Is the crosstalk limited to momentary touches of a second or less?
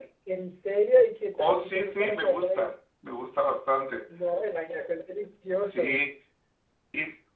No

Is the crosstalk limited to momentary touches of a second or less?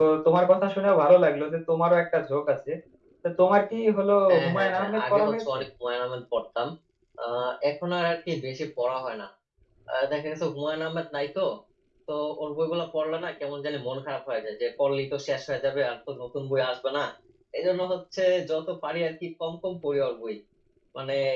No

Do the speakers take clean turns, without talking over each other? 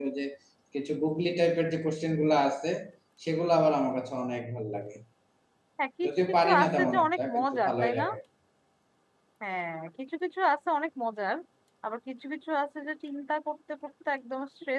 No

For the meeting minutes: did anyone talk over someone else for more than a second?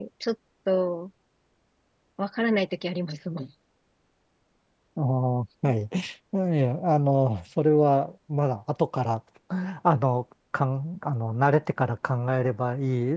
No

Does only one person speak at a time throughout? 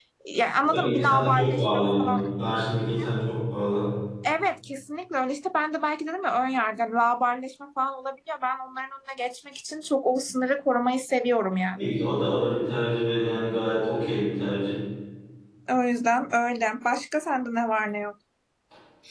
No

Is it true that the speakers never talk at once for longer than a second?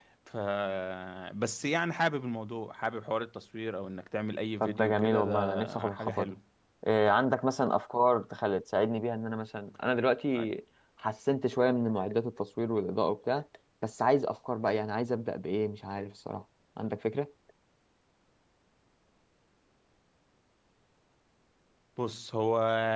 No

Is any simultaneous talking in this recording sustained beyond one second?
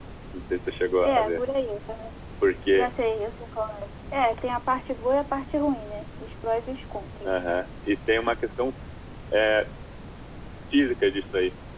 No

